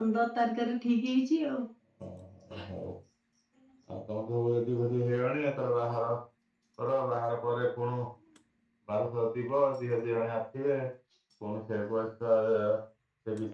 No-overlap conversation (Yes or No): Yes